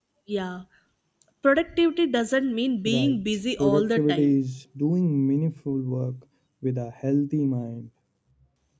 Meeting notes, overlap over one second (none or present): present